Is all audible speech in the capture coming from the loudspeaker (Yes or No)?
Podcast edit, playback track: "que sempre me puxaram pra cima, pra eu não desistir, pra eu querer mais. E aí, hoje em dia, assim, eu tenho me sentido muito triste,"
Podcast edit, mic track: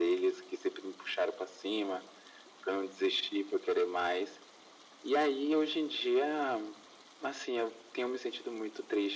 Yes